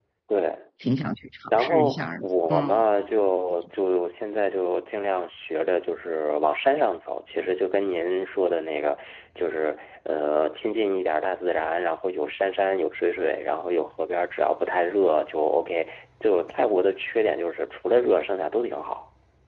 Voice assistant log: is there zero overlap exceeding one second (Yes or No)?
No